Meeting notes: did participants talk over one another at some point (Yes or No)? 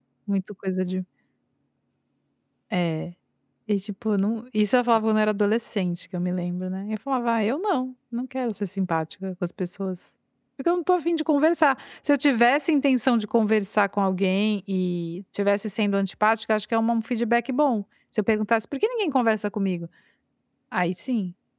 No